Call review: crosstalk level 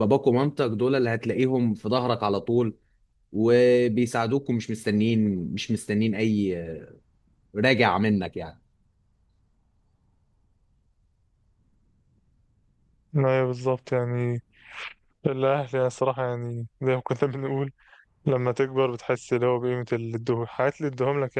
none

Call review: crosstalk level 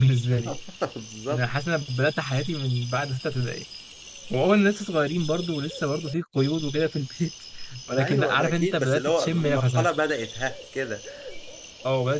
present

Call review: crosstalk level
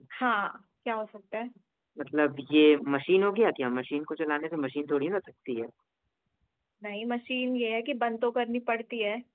none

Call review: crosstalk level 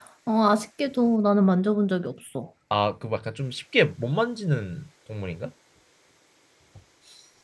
none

